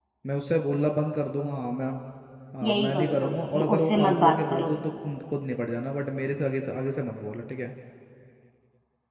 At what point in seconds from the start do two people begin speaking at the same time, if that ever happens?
2.7 s

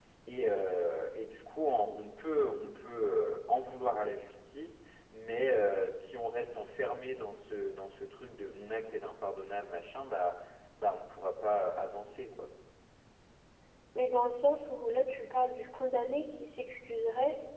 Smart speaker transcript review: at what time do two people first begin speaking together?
none

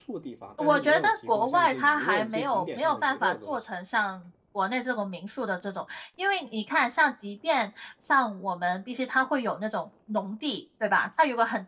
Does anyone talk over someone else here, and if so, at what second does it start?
0.6 s

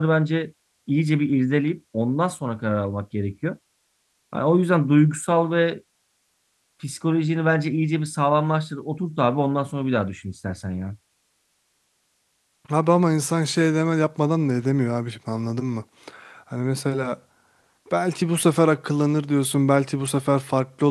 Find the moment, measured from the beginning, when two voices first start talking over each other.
none

